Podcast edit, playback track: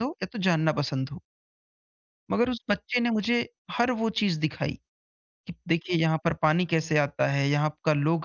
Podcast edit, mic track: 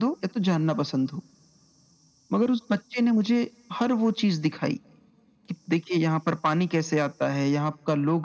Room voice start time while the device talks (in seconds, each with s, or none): none